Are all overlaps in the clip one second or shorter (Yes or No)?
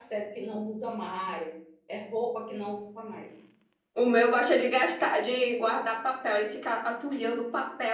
Yes